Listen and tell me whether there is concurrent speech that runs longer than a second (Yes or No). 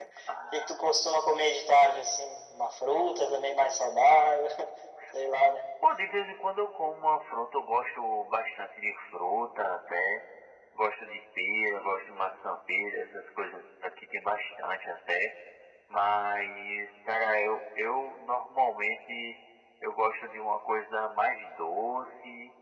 No